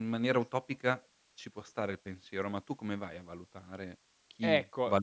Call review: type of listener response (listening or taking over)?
taking over